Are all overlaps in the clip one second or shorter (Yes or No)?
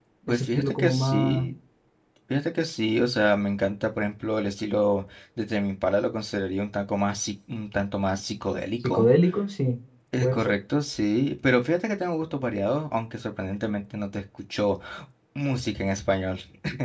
No